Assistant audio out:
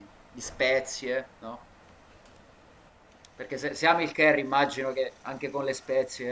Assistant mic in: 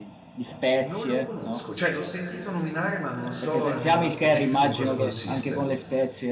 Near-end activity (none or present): present